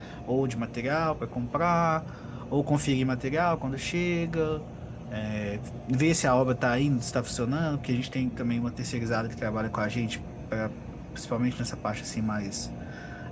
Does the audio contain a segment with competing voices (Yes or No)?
No